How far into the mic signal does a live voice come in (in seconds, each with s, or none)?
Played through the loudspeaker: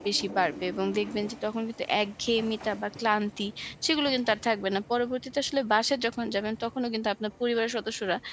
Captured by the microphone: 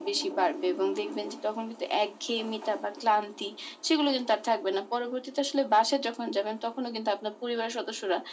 none